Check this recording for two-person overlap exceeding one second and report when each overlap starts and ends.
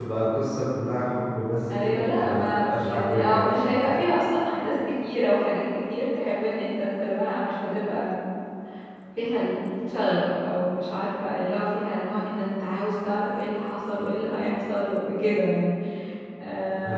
1.8-3.5

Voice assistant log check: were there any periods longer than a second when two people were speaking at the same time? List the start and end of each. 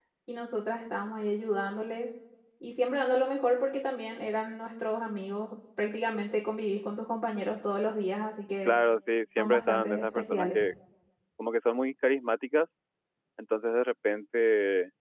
9.4-10.6

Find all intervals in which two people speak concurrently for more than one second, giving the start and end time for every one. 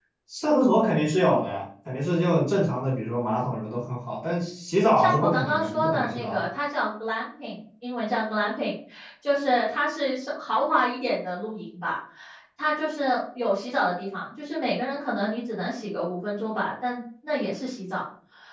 5.0-6.5

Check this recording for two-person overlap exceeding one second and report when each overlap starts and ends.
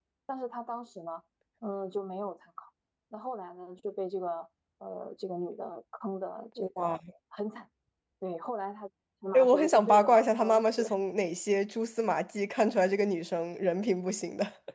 9.3-10.9

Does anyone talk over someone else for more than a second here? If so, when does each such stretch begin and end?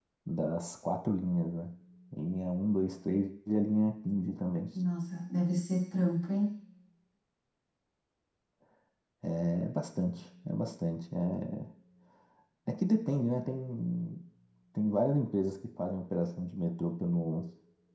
none

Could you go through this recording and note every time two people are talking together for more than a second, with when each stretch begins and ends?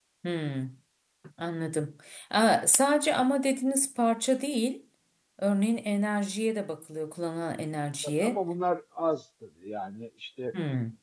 none

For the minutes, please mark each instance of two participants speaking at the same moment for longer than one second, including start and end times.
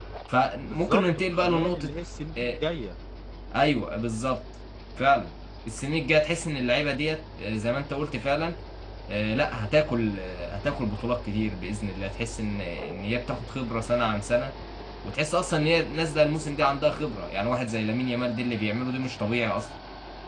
0.6-1.9

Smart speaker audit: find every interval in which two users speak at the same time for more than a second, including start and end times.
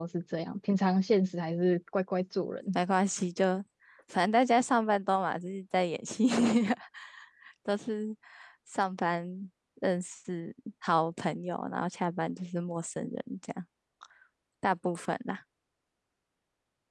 none

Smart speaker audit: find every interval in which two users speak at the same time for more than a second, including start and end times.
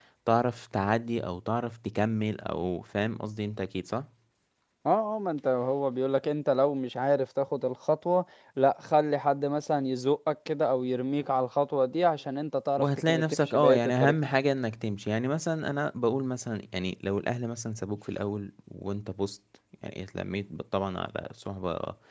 12.8-14.1

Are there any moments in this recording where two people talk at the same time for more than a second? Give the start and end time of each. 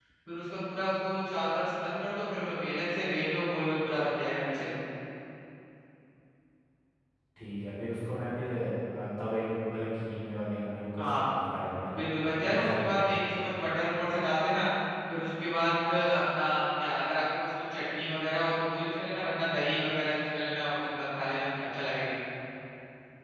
12.0-13.2

